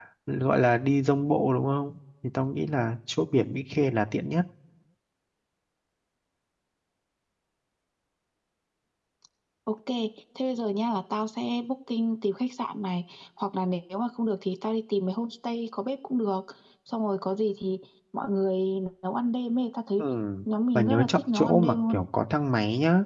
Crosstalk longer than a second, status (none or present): present